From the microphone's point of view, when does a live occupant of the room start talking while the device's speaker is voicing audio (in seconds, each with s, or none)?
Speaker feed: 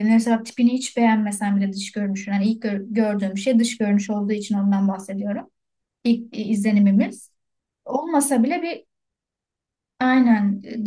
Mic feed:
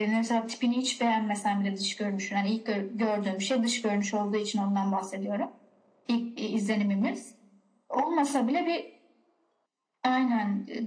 none